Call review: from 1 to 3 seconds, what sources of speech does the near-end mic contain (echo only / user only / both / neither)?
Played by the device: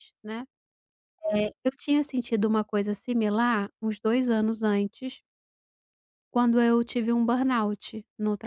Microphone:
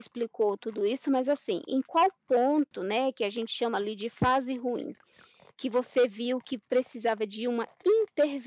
user only